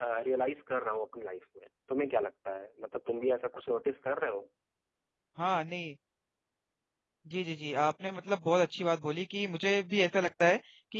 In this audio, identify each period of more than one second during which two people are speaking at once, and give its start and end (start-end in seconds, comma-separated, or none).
none